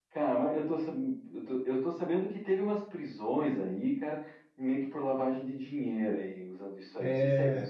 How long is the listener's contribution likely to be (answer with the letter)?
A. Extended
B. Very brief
A